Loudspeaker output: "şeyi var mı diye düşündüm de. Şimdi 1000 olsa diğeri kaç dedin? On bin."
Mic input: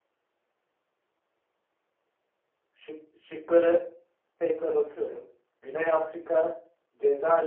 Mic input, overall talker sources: user only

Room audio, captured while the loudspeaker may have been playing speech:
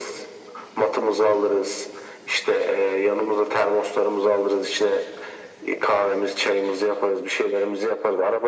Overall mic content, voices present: echo only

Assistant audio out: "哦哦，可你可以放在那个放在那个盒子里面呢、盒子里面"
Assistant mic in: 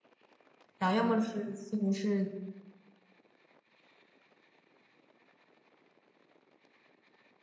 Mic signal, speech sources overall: user only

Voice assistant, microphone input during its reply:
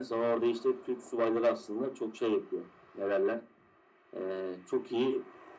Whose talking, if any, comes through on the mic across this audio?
echo only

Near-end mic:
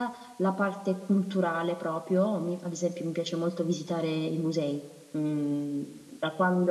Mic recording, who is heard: user only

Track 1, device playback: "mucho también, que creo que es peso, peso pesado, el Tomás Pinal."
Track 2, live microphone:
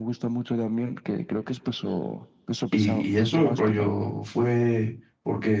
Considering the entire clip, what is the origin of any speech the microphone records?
both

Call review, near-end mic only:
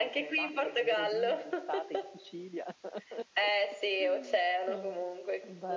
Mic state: both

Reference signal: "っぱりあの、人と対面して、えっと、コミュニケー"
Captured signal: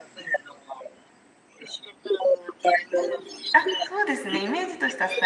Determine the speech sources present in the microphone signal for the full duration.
both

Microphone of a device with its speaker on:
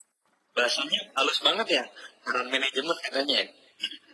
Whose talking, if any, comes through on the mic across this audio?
echo only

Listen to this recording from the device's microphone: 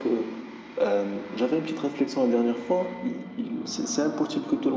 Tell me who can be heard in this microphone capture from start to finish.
echo only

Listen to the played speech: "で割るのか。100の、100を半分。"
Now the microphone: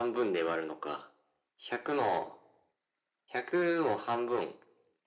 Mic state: echo only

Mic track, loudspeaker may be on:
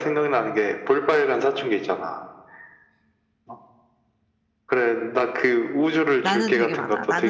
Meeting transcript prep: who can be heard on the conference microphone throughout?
both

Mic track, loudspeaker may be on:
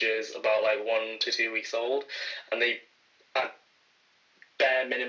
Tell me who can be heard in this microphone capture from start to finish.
echo only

